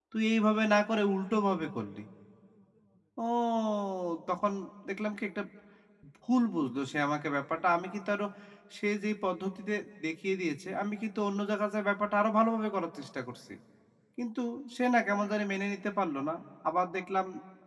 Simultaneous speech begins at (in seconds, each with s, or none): none